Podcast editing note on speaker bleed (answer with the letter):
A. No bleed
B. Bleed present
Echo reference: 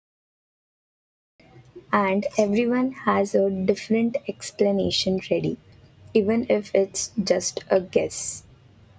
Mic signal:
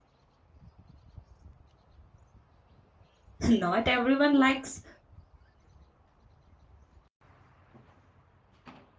A